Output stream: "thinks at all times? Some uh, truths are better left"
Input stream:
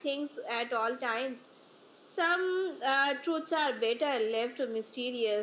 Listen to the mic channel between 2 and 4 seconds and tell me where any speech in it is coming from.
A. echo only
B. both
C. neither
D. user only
A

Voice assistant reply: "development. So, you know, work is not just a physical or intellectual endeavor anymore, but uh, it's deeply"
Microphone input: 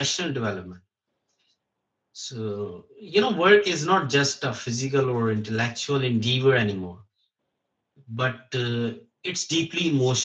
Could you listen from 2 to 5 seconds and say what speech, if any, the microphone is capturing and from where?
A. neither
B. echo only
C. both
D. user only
B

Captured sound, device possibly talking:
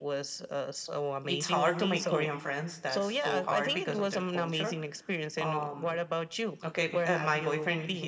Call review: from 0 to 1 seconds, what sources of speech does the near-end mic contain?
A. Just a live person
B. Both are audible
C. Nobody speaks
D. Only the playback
D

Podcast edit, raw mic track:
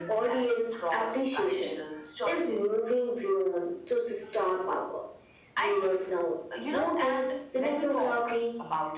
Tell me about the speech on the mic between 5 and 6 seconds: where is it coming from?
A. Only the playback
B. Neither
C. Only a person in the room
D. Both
A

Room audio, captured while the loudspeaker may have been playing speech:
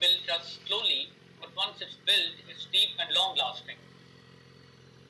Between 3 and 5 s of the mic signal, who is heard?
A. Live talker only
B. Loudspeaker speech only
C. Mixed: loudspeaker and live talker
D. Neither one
B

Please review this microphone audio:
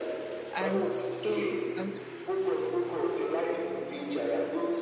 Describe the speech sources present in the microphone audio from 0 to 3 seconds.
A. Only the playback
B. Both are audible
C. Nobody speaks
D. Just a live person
B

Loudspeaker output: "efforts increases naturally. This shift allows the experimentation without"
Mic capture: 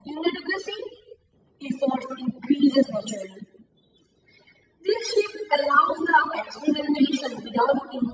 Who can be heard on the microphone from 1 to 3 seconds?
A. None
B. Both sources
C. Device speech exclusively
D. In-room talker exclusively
C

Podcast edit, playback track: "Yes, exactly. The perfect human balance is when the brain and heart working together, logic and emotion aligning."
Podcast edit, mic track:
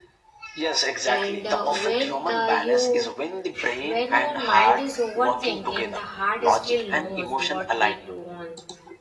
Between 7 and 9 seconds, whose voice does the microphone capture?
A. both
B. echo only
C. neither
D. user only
A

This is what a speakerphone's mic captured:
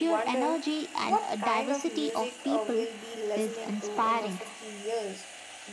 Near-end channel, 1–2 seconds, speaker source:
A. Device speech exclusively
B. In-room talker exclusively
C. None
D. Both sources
D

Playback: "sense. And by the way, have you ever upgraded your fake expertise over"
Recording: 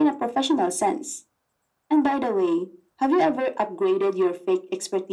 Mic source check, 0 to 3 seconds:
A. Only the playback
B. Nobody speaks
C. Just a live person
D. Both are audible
A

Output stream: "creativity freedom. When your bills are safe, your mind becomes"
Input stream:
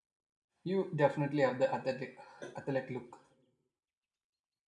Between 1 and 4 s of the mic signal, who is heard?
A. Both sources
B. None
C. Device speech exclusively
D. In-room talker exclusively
D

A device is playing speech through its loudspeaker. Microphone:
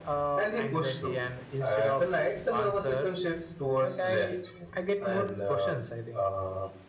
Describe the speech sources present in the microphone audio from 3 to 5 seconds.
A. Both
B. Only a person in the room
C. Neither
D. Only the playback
D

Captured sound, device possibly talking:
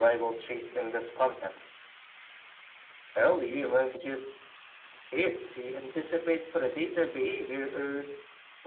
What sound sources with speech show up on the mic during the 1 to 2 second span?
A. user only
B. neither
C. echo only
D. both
C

